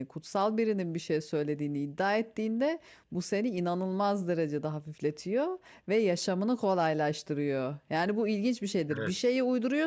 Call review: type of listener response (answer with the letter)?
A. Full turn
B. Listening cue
B